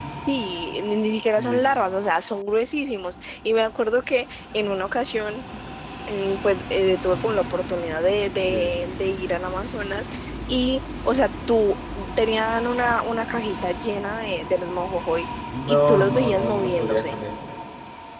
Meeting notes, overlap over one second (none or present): present